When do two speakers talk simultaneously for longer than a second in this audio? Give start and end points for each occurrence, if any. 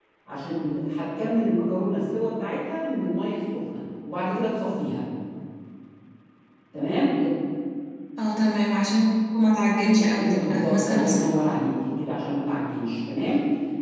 9.9-11.3

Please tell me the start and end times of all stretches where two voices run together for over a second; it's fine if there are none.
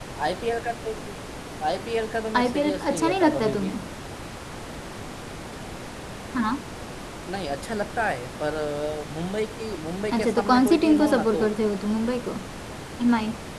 2.4-3.7, 10.1-11.4

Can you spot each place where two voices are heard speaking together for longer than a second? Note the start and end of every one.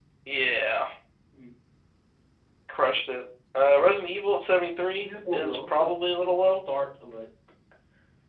5.0-6.6

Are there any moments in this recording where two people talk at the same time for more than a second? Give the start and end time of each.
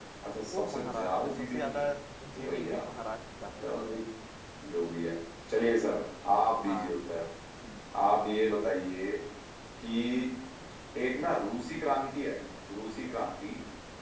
0.5-1.9

